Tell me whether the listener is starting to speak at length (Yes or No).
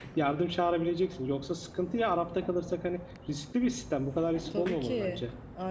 Yes